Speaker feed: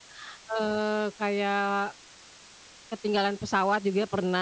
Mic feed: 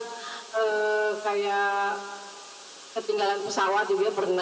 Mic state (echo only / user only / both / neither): echo only